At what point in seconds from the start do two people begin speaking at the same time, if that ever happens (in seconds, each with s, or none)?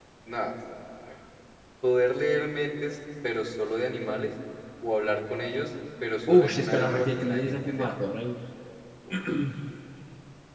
6.3 s